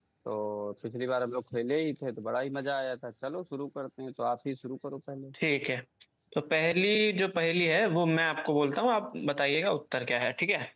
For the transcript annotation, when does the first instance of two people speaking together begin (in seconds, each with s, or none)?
none